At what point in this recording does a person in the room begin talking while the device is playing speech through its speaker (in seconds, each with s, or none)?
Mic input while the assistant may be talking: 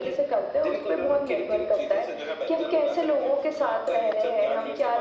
none